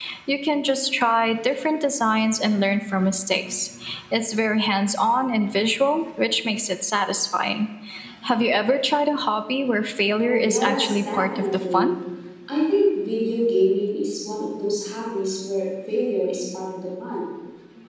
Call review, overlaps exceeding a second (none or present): present